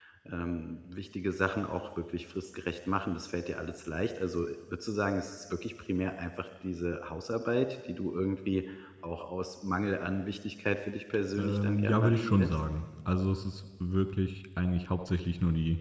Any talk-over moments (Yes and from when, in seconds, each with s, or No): Yes, from 11.4 s